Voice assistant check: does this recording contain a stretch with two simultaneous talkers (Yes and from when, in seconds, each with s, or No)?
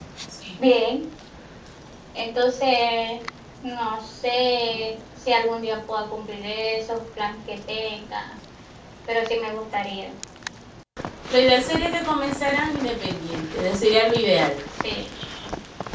No